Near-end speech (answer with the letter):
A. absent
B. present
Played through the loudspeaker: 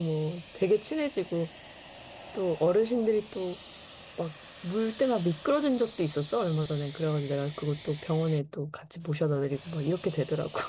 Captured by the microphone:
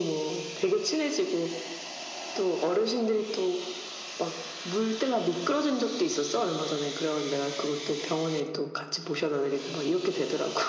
A